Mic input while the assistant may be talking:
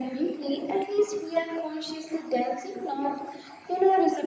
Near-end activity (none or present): none